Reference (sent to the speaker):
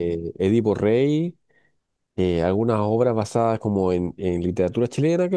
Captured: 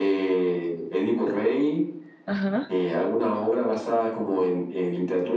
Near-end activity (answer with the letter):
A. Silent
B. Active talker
B